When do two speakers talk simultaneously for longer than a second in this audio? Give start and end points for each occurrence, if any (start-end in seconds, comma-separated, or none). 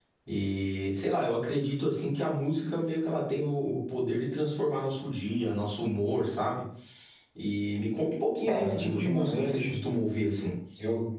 8.5-9.8